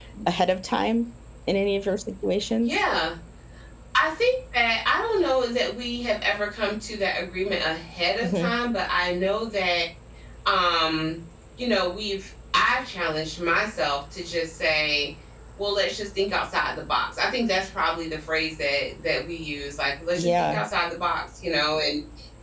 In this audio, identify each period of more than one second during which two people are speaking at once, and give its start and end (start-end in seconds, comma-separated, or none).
none